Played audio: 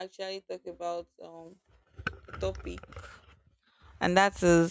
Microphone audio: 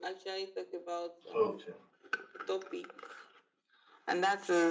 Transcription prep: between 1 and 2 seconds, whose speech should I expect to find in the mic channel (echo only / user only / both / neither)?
both